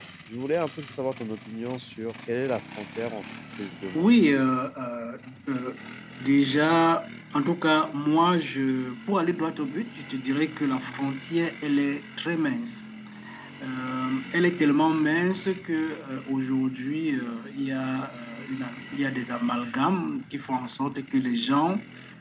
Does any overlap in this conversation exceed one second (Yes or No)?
No